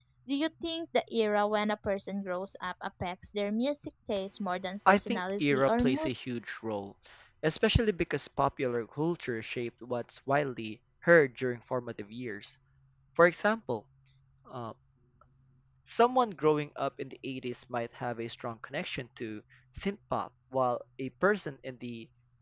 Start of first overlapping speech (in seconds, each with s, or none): 4.9 s